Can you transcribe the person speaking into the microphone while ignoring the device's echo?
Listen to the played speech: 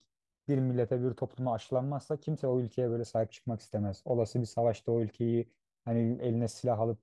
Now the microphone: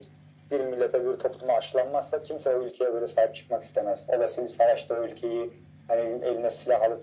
none

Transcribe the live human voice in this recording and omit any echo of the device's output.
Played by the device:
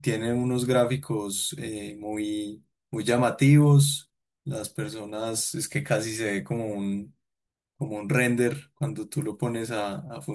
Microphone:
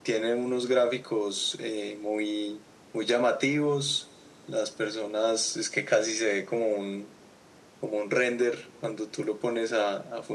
none

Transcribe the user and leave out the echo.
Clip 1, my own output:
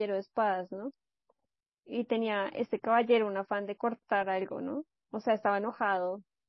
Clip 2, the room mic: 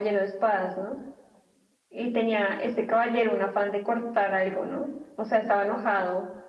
none

